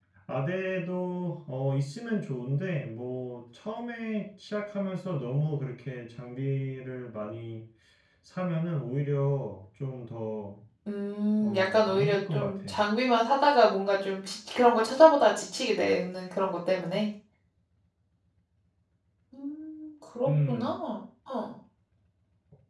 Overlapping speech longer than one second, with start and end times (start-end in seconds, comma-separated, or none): 11.4-12.7